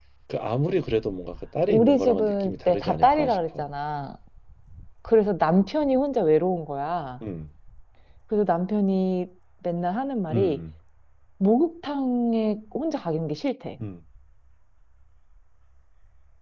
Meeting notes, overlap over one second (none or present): present